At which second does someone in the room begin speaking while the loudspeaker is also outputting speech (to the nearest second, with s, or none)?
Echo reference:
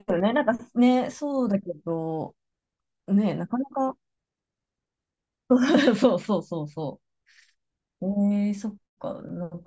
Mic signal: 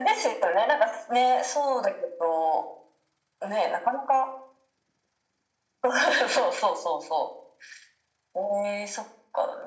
none